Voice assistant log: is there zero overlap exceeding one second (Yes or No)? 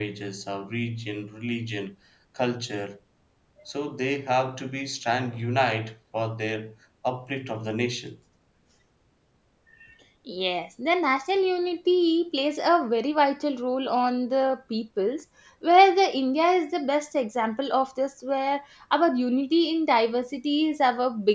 Yes